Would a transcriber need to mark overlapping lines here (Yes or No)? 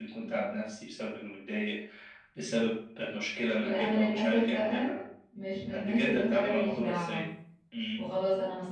Yes